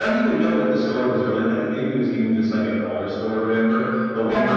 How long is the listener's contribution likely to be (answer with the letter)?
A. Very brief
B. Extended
A